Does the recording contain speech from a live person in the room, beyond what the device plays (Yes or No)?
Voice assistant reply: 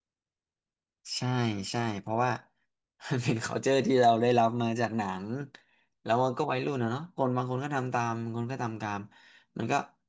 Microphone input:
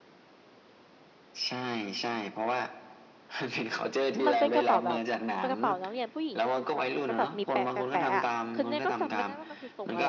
Yes